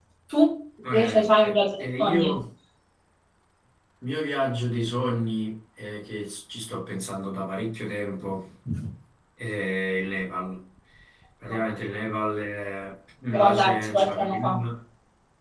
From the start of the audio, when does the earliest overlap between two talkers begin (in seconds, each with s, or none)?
0.9 s